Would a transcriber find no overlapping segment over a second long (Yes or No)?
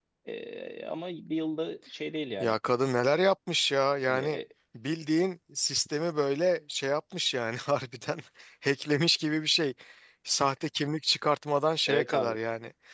Yes